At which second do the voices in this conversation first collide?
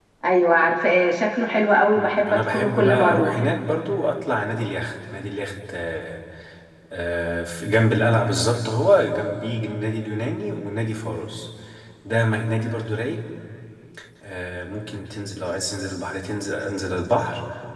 1.9 s

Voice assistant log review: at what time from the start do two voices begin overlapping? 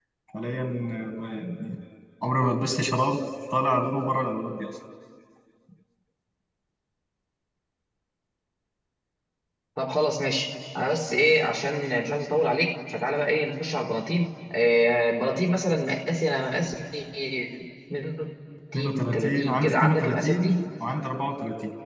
18.7 s

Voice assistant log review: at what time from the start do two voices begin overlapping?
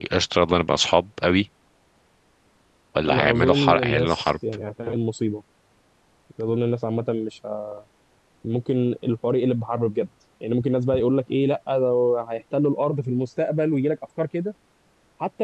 3.1 s

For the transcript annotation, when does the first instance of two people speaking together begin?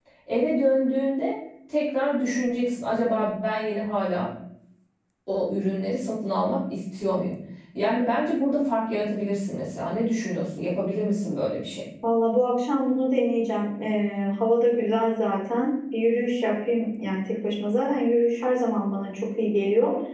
none

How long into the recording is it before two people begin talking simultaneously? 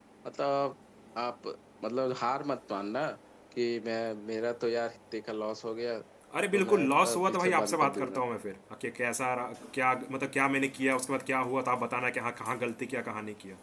6.5 s

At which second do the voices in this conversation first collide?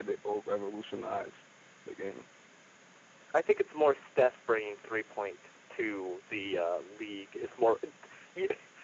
none

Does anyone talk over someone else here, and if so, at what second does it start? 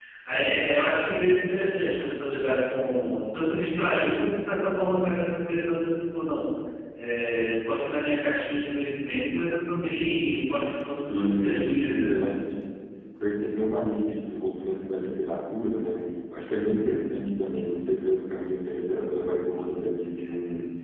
10.9 s

